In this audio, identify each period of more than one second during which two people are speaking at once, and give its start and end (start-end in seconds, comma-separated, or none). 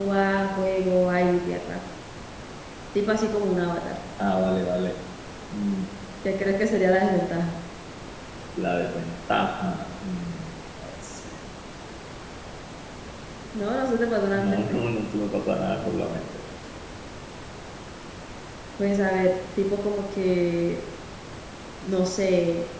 none